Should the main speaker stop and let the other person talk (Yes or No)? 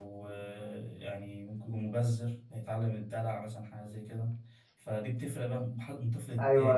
Yes